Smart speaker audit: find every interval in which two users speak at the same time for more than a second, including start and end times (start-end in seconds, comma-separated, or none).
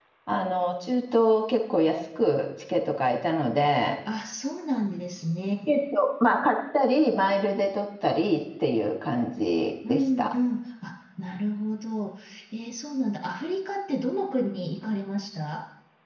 none